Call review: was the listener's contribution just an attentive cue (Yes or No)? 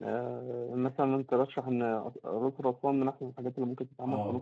No